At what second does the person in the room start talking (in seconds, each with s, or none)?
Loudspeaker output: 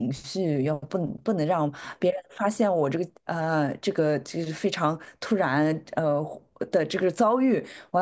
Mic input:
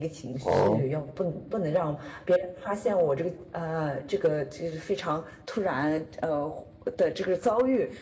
0.4 s